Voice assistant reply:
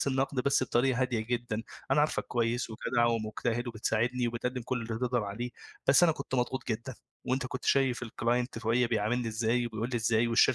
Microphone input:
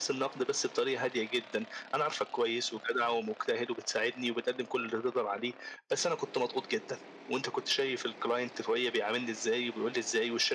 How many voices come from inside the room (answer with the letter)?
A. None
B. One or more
A